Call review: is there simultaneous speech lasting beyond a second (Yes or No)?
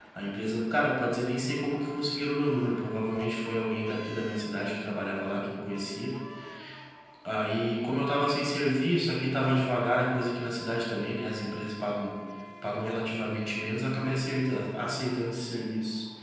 No